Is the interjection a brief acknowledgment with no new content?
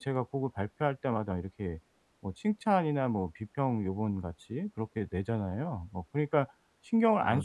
No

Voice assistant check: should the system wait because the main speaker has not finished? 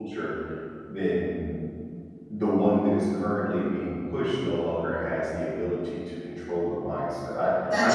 Yes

